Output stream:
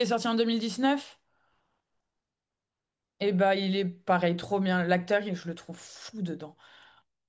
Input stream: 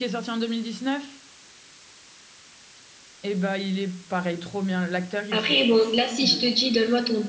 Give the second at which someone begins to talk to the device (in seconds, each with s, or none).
5.3 s